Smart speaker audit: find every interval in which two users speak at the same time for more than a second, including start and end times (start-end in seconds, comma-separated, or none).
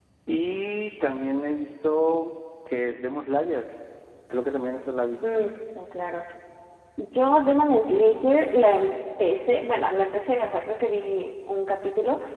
none